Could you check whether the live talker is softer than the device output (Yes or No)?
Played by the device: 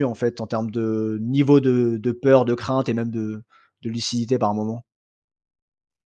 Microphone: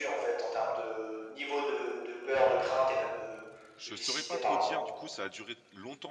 Yes